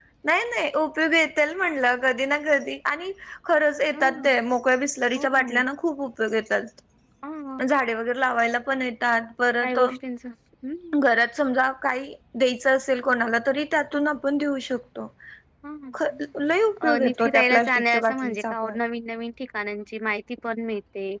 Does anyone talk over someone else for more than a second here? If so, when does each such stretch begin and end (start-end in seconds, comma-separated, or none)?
16.9-18.8